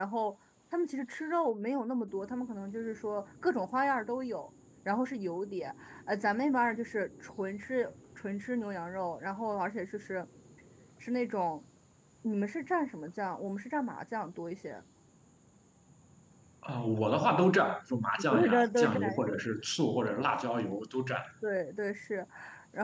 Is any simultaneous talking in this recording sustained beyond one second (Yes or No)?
Yes